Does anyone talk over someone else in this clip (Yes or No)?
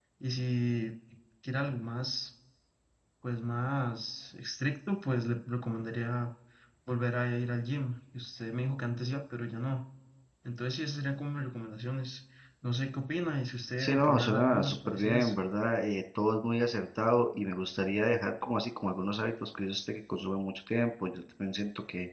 Yes